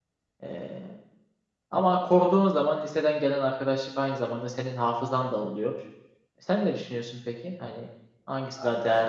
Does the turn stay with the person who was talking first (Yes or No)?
No